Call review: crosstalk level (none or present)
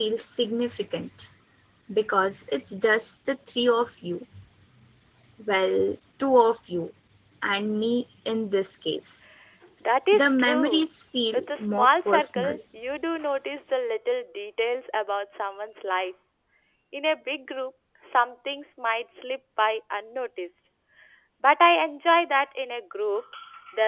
present